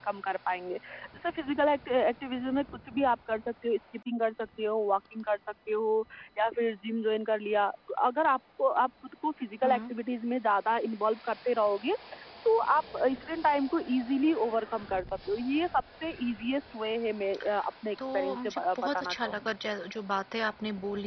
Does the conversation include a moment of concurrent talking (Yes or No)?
Yes